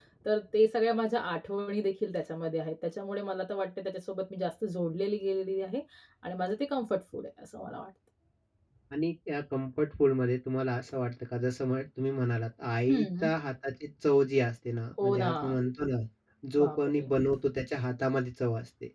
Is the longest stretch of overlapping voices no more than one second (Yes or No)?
Yes